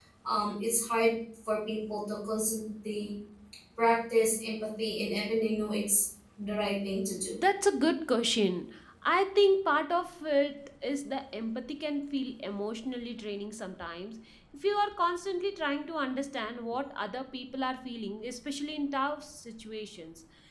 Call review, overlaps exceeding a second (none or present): none